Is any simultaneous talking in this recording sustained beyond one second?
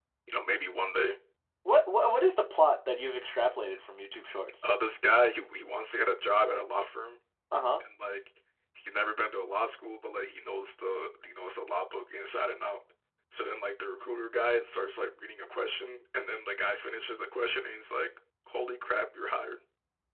No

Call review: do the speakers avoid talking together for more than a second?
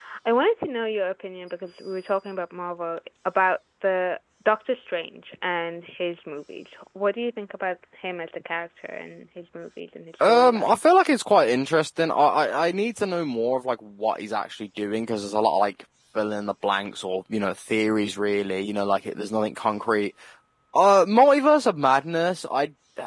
Yes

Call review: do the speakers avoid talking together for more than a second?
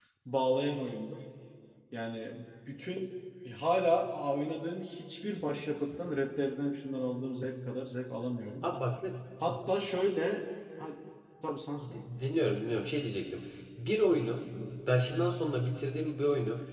Yes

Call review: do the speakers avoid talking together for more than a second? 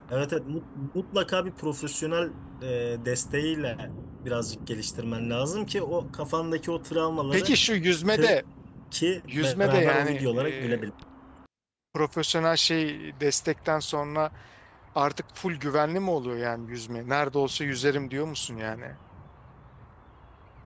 No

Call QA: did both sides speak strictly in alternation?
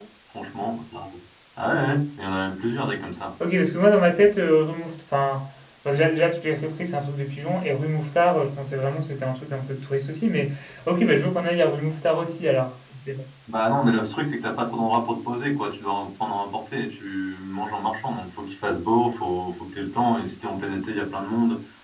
Yes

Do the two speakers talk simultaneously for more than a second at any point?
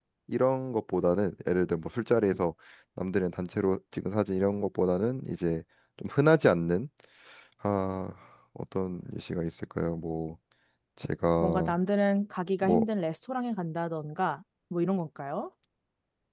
No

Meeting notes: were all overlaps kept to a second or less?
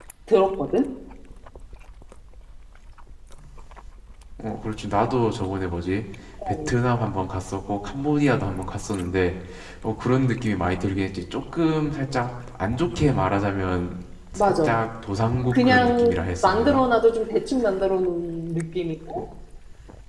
No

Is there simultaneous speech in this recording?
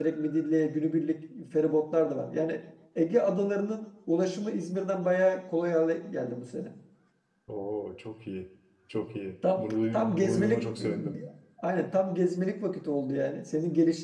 Yes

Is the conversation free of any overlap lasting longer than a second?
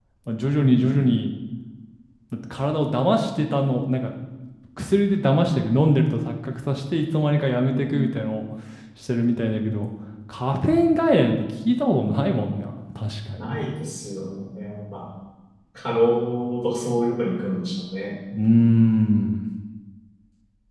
Yes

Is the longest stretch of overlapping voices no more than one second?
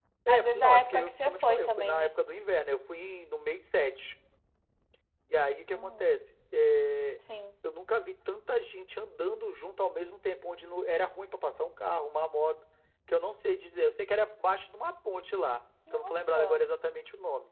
No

